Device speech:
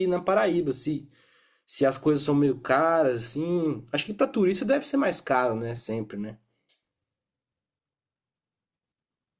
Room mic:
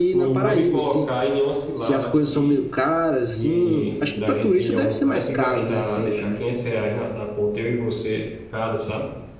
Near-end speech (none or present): present